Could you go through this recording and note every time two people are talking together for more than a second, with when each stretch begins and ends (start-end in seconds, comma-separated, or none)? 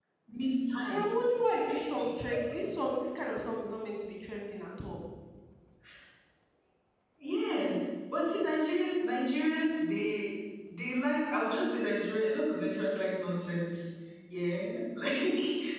none